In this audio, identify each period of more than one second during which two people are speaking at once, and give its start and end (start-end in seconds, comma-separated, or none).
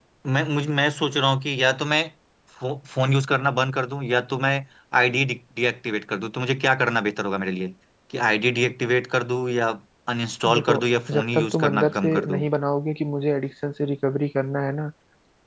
11.1-12.4